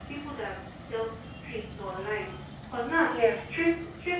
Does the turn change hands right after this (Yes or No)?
No